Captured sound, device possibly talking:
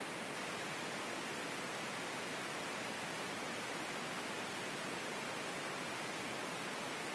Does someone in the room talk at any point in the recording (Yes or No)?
No